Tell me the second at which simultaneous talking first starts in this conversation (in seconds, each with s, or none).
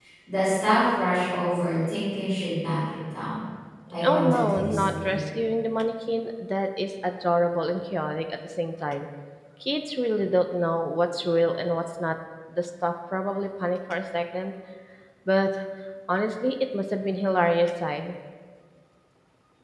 4.0 s